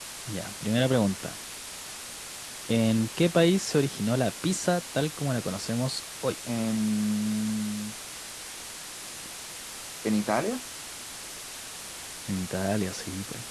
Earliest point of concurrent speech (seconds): none

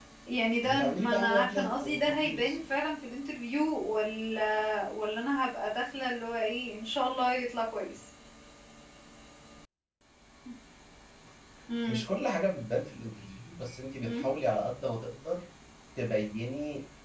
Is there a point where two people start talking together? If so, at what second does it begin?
0.6 s

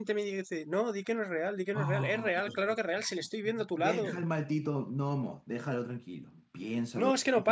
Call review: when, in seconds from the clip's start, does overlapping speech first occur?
1.7 s

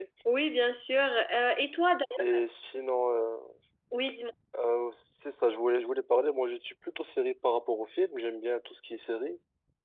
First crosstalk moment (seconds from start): none

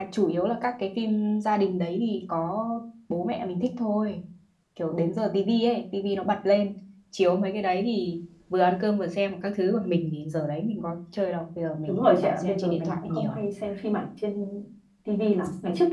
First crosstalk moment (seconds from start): 11.9 s

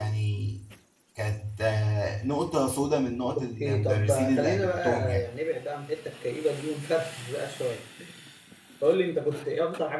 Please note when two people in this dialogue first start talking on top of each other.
3.2 s

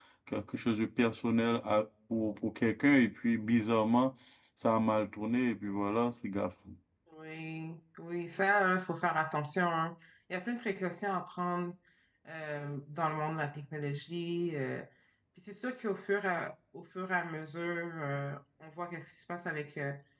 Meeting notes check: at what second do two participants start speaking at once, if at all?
none

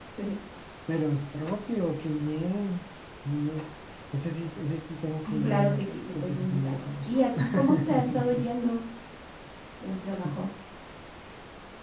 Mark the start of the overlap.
5.2 s

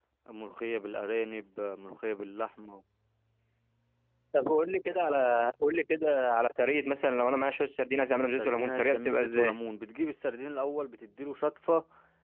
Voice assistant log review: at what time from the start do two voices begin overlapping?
8.3 s

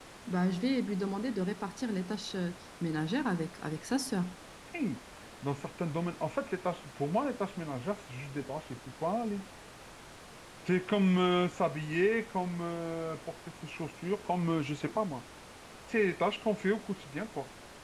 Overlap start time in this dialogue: none

